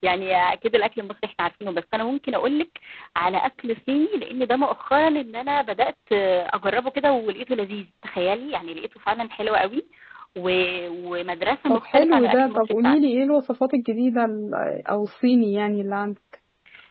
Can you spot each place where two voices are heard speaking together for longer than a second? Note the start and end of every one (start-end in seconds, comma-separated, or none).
11.7-13.0